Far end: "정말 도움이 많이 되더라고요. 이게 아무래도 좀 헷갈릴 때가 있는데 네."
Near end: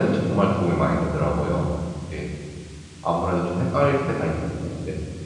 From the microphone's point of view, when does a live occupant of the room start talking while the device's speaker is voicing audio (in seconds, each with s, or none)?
none